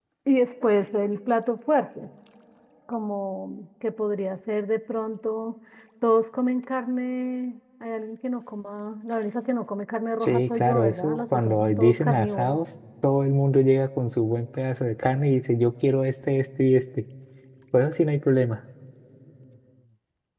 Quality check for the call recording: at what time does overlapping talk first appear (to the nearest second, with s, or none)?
10 s